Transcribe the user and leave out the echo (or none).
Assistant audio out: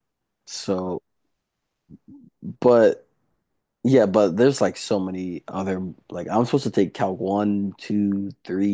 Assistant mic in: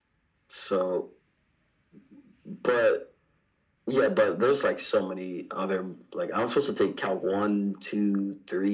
none